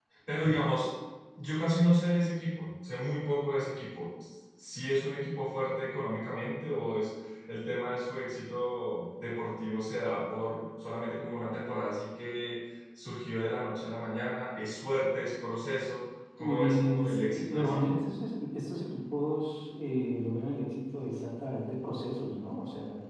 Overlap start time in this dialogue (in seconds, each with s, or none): 16.4 s